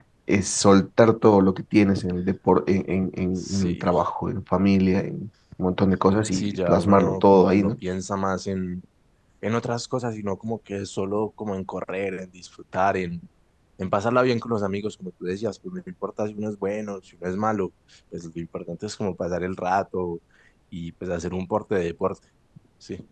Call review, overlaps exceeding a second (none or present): present